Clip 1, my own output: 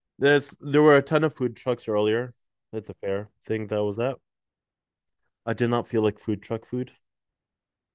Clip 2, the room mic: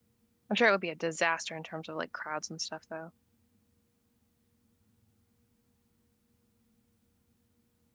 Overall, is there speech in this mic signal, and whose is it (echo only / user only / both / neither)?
user only